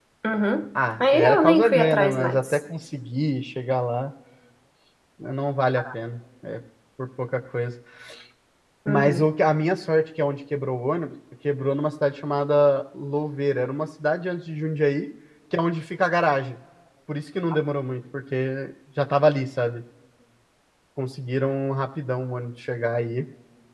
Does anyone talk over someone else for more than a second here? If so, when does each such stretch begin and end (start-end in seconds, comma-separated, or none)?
1.0-2.6